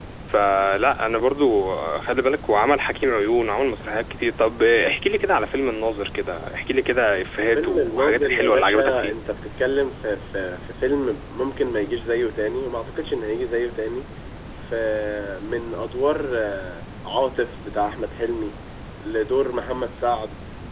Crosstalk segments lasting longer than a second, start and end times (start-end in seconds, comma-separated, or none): 7.5-9.1